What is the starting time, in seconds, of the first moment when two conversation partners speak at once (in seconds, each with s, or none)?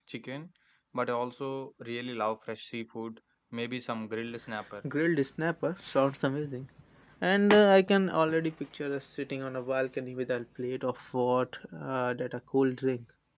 none